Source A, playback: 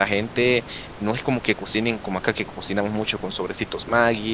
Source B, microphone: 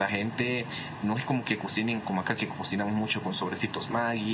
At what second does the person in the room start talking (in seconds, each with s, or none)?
none